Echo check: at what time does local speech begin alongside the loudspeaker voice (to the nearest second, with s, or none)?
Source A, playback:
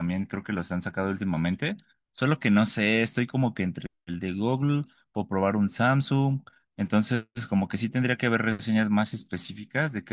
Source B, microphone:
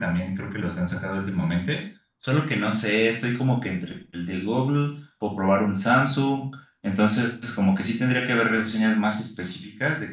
none